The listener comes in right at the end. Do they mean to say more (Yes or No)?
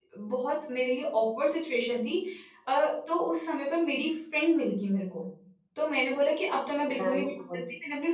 No